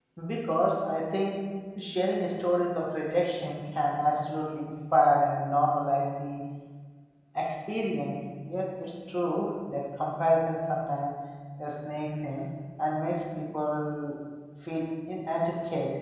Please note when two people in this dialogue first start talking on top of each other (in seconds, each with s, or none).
none